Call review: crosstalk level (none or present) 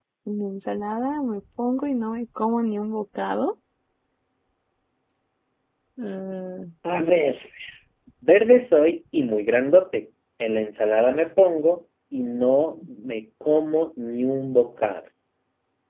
none